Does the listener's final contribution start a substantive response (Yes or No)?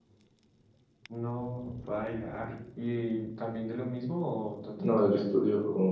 Yes